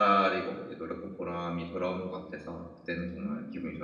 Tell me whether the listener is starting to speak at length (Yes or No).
Yes